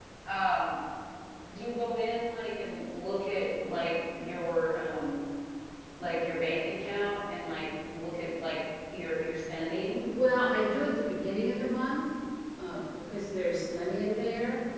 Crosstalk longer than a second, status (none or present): none